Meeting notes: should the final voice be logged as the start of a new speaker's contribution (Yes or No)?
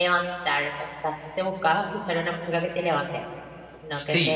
Yes